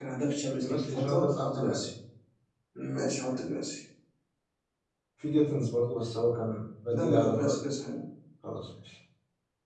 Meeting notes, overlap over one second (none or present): present